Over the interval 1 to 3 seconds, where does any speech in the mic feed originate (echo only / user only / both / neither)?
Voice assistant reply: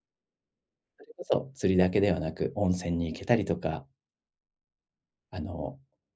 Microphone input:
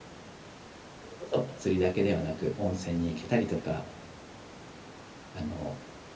echo only